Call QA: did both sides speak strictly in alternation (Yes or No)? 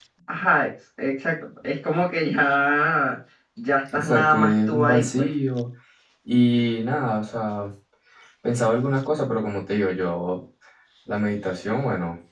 No